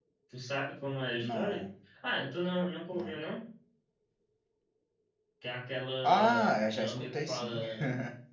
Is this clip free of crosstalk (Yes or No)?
No